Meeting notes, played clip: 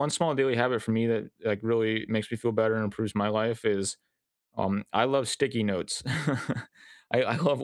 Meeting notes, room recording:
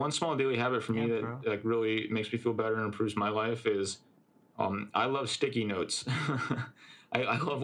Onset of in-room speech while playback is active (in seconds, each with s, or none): 0.9 s